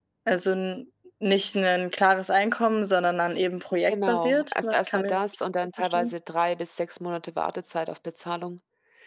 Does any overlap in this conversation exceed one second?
Yes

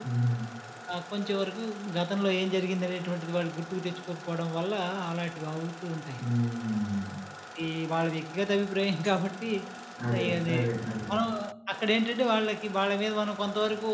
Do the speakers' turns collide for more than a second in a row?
No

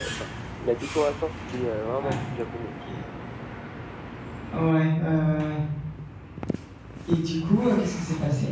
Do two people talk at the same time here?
No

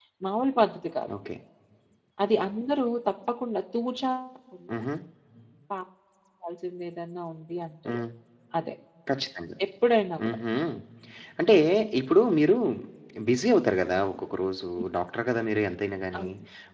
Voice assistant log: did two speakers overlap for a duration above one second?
No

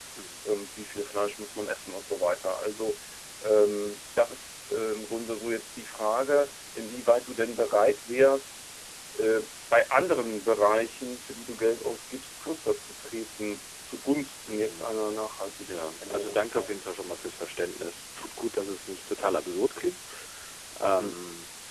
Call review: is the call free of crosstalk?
No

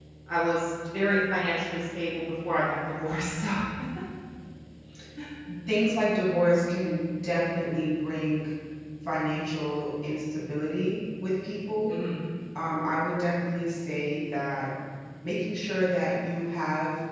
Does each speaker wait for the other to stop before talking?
Yes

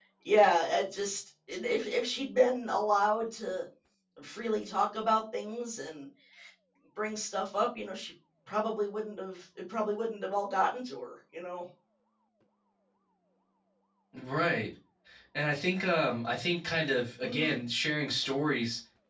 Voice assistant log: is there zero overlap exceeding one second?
Yes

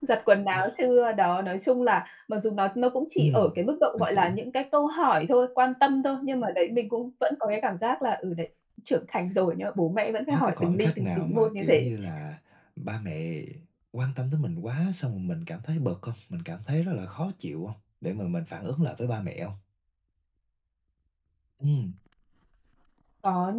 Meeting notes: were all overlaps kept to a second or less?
No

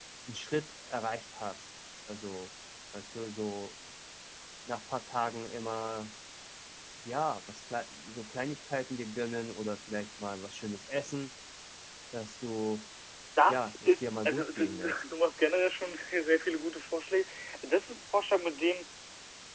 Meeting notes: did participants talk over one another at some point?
Yes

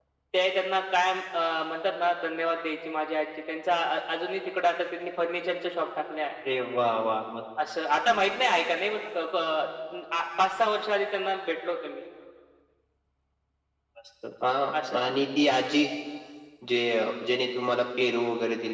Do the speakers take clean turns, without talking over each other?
Yes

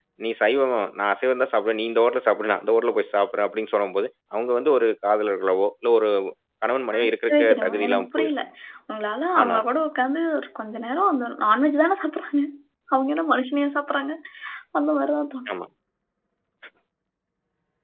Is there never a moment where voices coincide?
No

